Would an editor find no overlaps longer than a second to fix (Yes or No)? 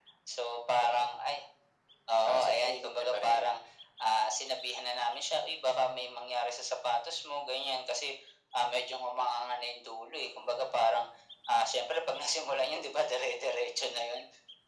No